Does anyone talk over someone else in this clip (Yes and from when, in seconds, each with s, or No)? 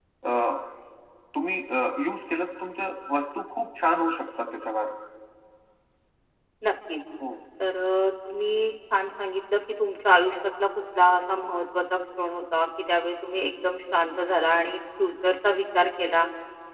No